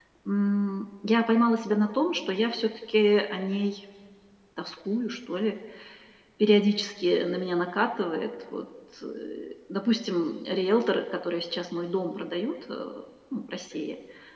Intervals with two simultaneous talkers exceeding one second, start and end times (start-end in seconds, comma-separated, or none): none